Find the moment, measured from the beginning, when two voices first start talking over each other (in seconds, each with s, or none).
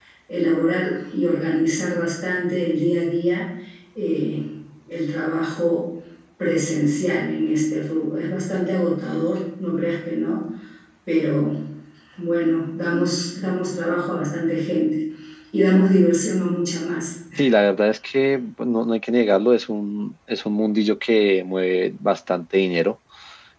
none